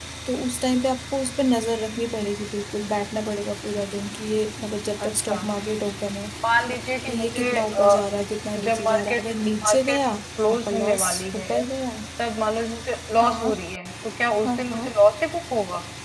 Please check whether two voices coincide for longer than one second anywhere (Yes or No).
Yes